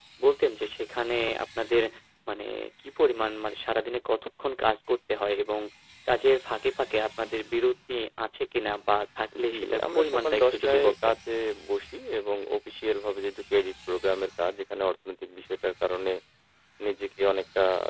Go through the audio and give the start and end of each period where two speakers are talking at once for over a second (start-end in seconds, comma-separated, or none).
9.5-11.1